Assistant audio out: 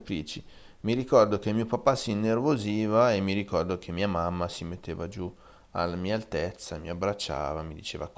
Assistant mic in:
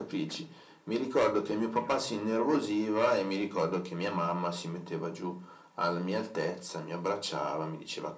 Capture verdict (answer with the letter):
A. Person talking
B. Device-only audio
B